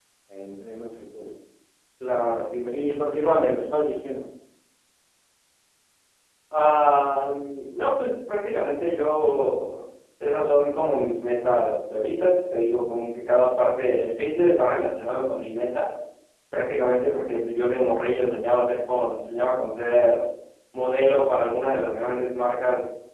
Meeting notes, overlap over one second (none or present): none